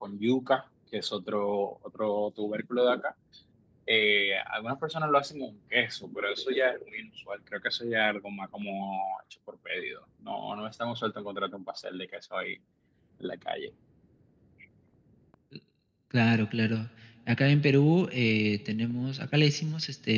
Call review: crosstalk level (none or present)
none